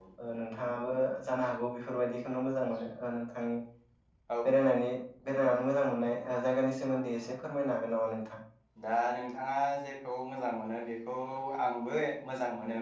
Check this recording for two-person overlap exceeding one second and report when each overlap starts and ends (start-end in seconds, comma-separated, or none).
none